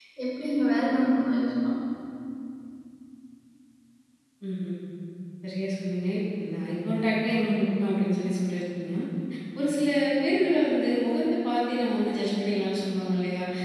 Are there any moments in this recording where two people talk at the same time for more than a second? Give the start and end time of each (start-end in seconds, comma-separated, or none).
none